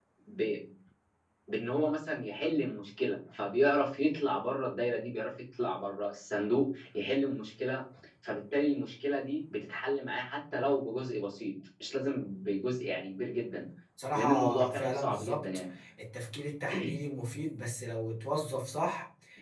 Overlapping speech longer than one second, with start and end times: 14.1-15.4

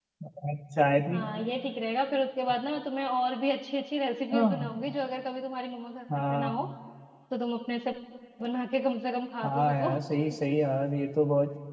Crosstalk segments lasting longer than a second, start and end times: none

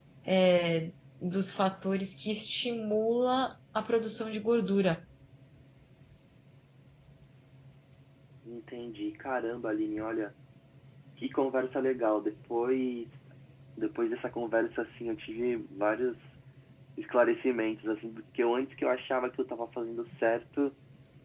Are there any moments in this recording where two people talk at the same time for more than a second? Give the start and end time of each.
none

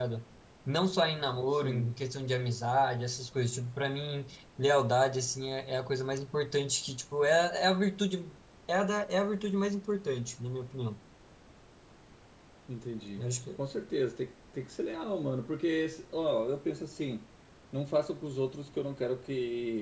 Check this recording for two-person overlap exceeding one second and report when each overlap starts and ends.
none

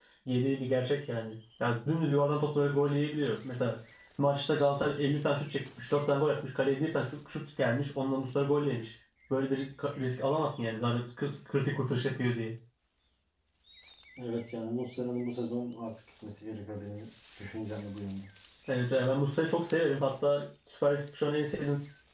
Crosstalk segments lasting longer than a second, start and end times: none

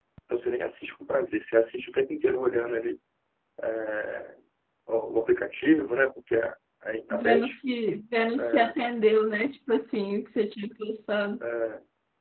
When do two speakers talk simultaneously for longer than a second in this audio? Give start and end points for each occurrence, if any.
none

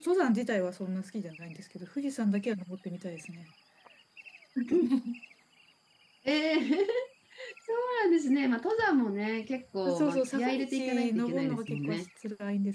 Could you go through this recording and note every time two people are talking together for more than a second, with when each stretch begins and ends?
9.9-12.1

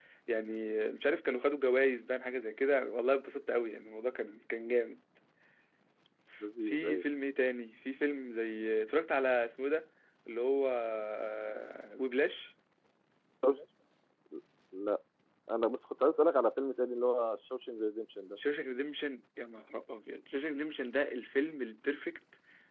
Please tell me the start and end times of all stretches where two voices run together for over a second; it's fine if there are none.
none

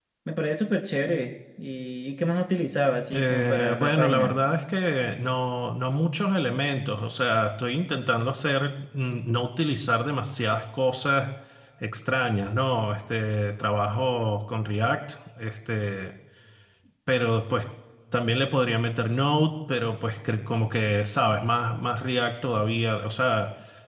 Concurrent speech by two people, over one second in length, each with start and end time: 3.1-4.3

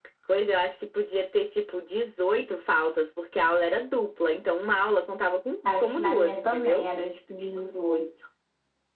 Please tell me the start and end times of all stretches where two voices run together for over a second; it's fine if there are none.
5.6-6.9

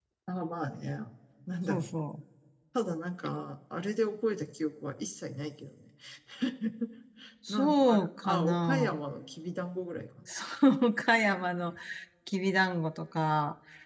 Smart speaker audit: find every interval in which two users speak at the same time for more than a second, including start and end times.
7.5-8.9

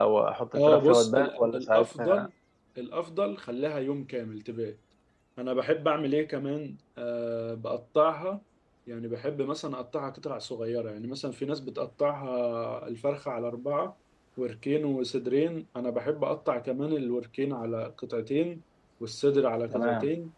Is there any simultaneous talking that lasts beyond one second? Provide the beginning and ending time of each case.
0.6-2.3

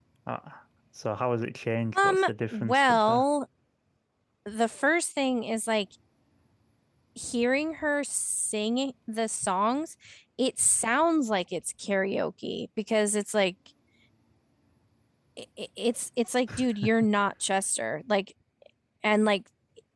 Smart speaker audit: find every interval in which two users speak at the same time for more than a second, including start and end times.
1.9-3.2

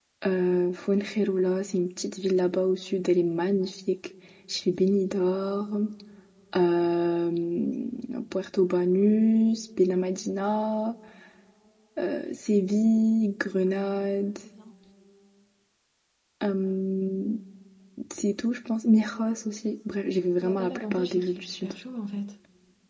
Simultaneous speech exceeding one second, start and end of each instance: 20.4-21.7

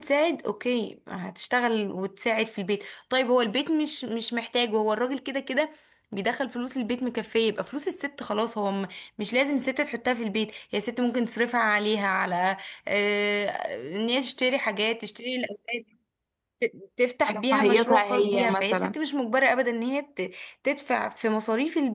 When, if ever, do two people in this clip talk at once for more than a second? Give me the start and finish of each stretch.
17.3-18.9

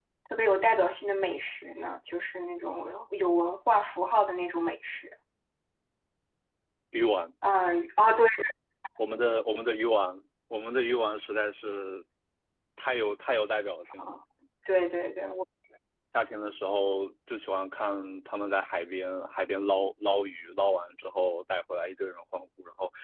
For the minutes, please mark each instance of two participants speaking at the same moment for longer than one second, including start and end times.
none

